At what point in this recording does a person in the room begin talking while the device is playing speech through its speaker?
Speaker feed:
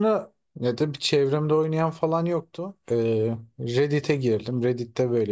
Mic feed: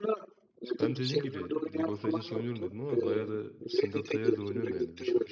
1 s

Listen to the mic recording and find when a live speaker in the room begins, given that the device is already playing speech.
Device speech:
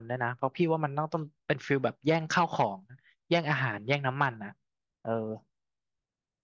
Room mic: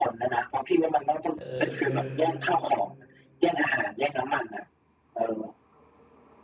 1 s

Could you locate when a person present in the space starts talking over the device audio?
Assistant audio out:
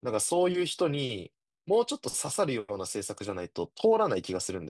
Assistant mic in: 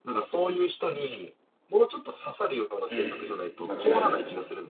3 s

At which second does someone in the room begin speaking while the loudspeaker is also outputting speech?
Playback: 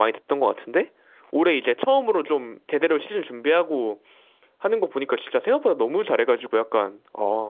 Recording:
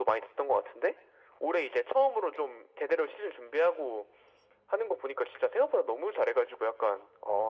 none

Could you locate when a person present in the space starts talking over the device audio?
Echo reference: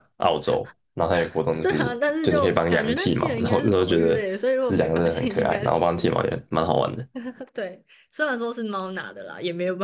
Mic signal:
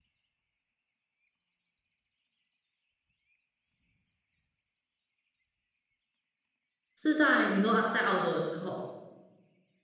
7 s

